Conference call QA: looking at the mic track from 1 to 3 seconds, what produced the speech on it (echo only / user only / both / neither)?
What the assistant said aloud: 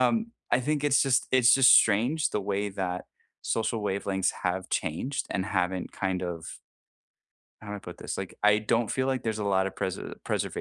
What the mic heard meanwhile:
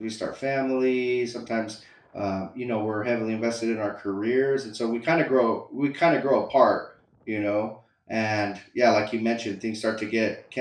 user only